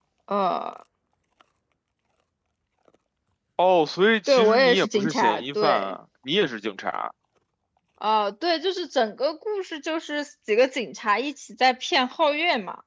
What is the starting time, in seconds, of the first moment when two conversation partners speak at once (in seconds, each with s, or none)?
4.3 s